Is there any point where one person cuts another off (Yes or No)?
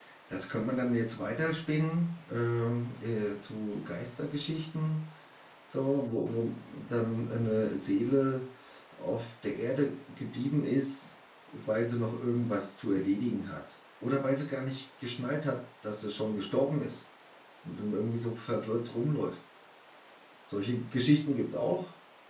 No